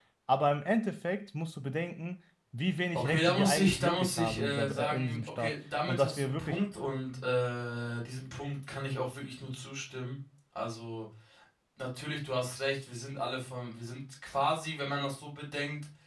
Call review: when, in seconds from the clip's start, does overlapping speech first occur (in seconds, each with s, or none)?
2.9 s